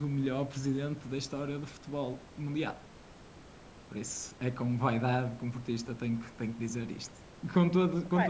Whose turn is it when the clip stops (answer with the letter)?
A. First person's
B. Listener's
B